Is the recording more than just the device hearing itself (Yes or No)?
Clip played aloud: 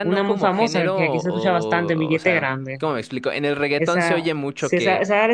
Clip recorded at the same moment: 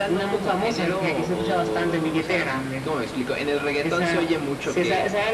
No